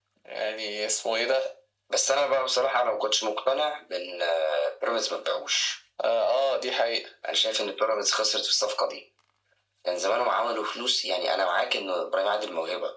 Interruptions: none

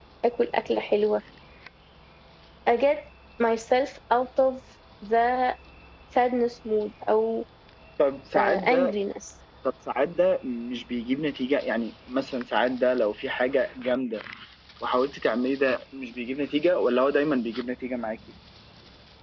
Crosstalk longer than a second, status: none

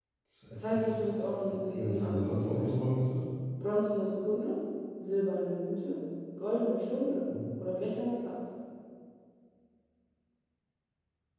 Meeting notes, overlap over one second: present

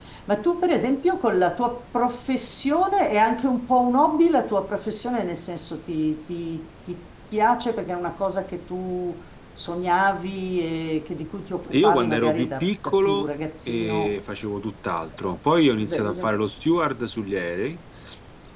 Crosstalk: present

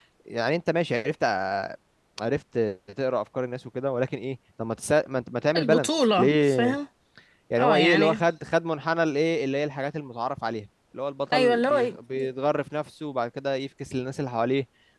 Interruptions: present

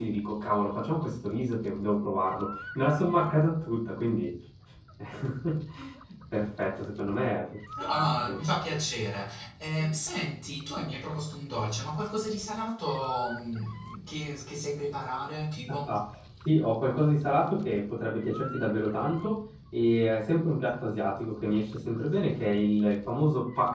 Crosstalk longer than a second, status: none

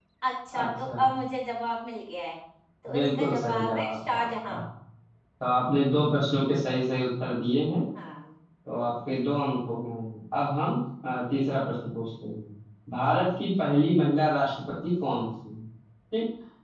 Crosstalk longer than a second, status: present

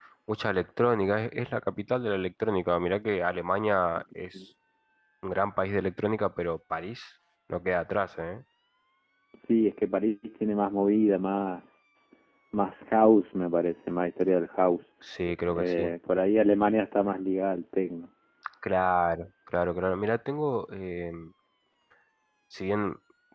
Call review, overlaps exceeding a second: none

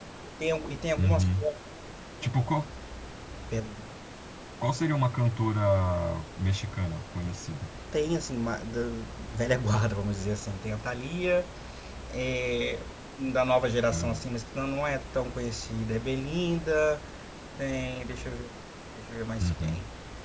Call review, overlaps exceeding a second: none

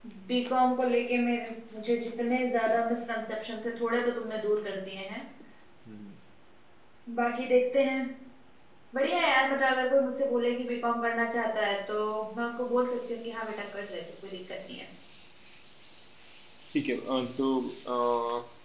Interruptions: none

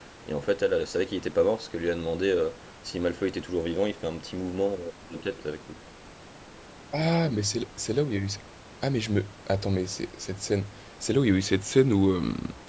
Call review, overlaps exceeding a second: none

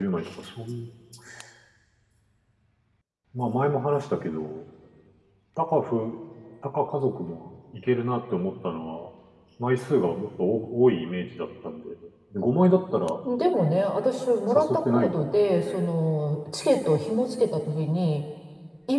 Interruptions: present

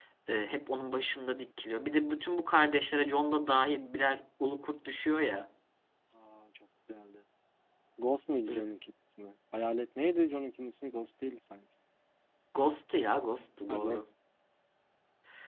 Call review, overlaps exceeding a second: none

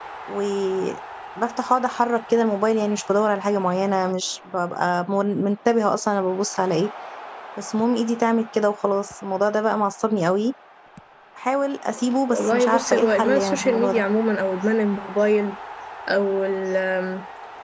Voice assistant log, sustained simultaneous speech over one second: present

